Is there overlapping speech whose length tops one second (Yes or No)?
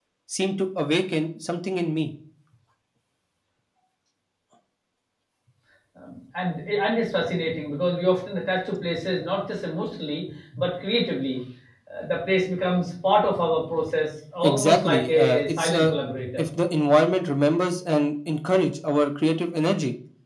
Yes